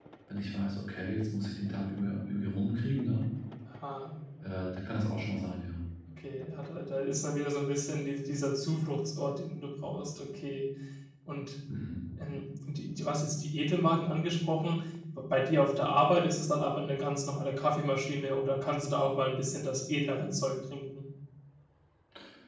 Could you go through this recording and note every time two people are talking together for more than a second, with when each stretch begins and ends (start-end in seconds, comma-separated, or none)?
none